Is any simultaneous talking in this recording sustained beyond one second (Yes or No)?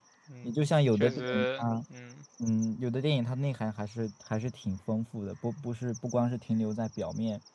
Yes